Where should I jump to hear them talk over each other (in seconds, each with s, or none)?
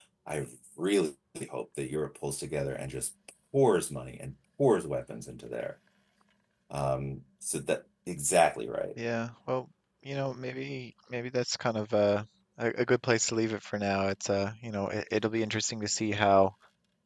none